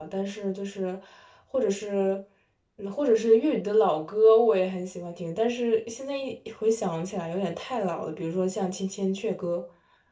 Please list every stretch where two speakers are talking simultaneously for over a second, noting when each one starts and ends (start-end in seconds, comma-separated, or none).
none